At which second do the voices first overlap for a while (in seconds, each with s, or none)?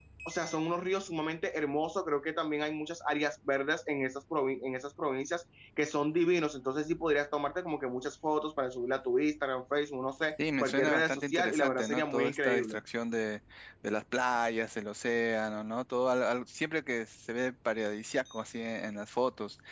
10.4 s